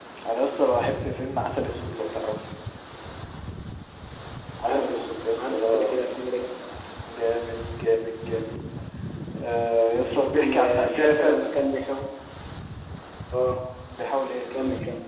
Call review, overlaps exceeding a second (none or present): present